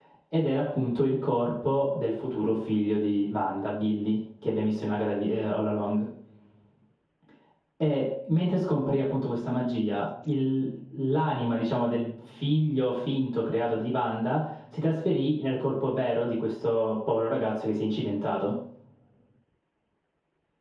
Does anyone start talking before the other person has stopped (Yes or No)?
No